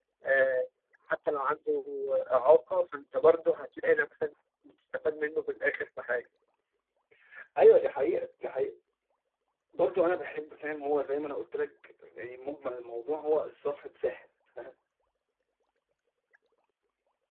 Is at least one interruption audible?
No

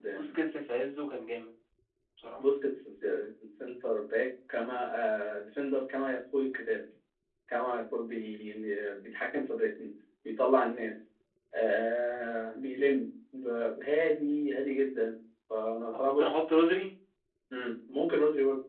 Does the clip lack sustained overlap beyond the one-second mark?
Yes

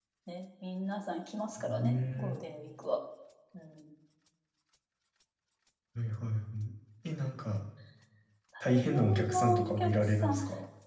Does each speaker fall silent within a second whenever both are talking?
No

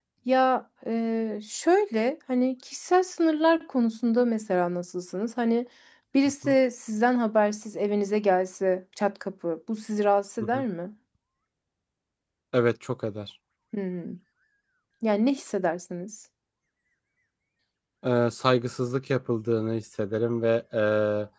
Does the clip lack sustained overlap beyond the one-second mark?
Yes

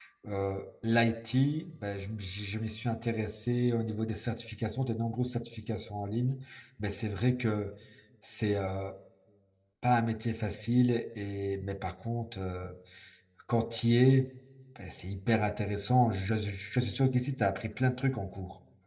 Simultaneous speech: No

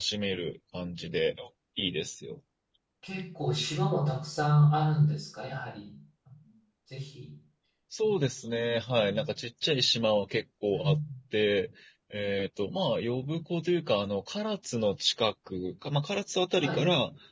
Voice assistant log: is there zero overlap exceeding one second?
Yes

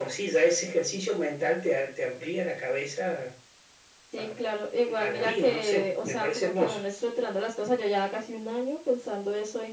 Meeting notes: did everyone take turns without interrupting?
No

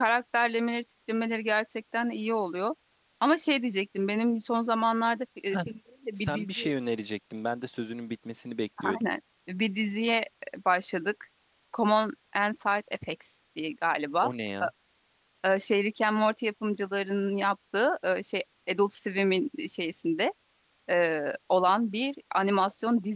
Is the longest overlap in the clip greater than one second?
No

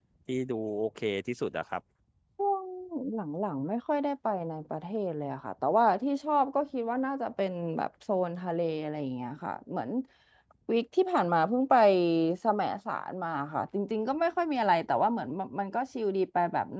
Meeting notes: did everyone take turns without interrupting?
Yes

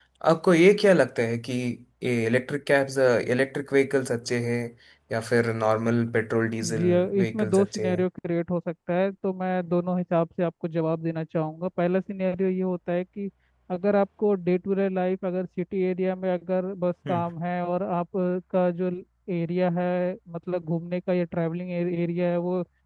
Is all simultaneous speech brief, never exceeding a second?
No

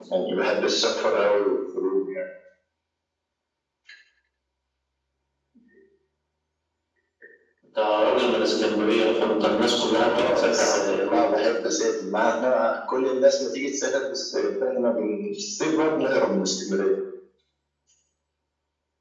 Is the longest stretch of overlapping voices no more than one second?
No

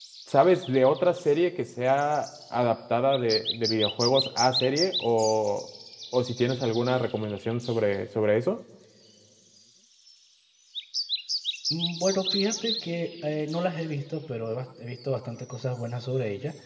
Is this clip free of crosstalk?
Yes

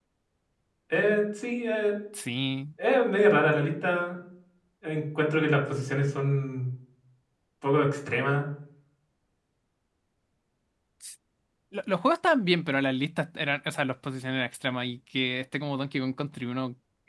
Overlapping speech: No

